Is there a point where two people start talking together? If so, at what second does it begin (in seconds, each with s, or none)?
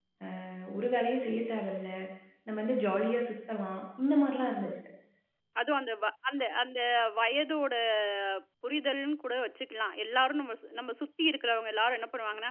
none